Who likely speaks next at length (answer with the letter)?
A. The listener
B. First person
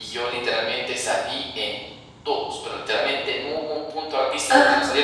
B